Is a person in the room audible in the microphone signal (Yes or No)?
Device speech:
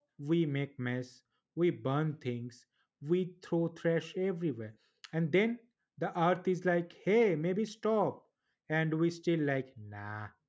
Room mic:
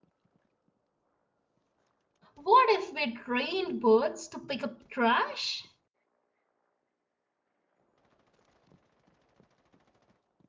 Yes